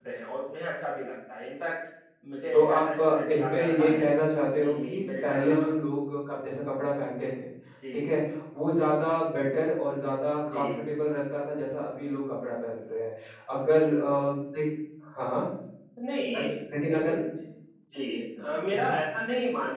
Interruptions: present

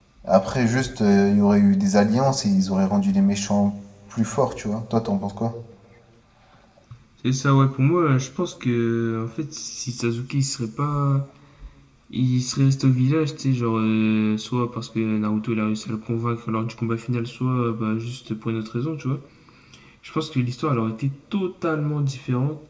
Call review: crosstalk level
none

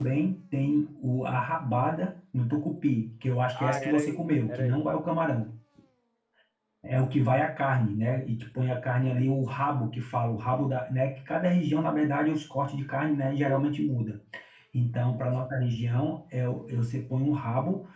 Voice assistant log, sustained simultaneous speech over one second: present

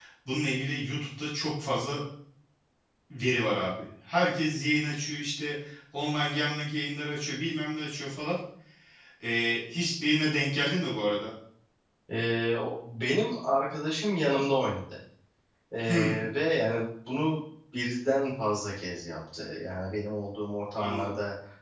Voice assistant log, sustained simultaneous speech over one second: none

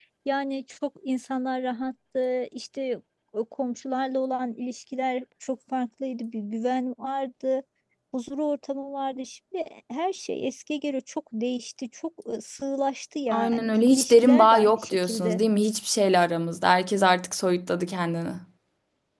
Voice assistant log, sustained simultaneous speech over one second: present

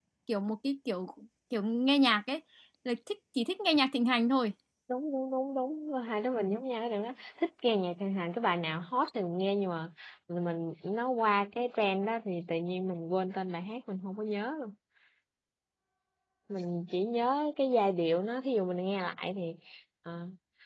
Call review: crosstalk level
none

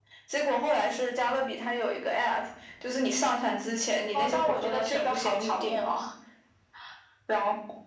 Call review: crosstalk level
present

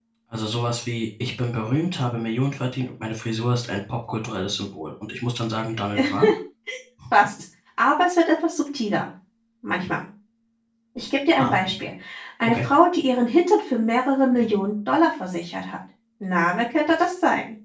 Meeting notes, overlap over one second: none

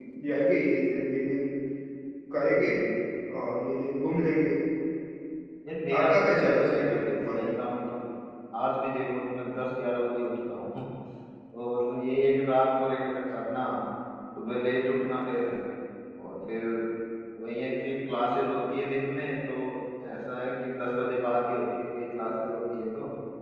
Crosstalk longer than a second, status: present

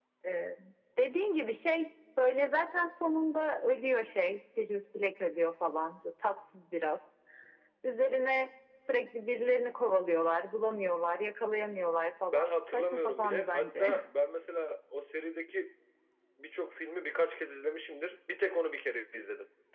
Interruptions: present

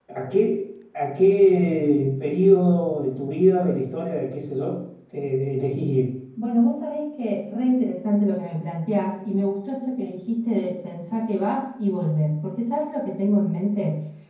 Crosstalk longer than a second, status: none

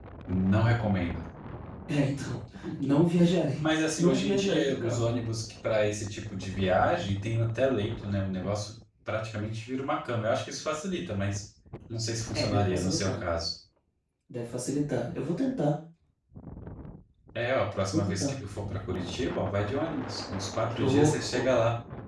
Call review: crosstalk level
present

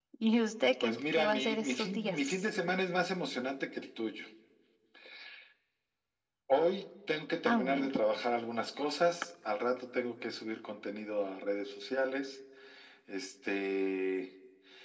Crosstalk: present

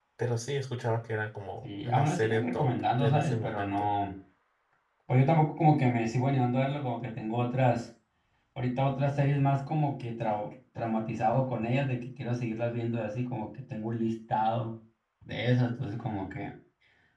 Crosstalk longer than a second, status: present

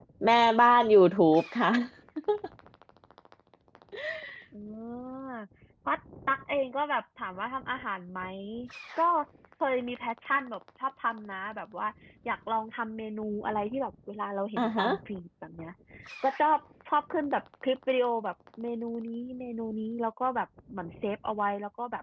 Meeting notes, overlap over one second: none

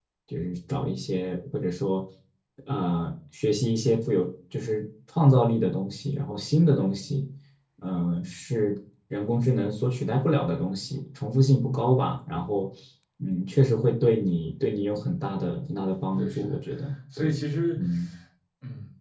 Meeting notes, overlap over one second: none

